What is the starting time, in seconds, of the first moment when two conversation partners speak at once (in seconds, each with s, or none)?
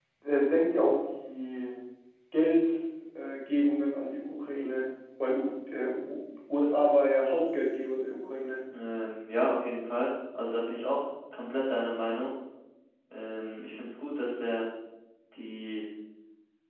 none